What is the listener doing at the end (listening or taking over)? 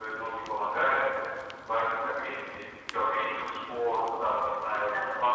listening